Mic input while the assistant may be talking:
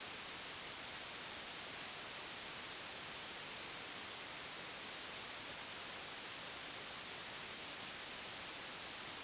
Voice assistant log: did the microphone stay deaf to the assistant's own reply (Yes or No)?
Yes